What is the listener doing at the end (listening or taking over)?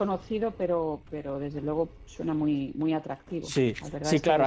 taking over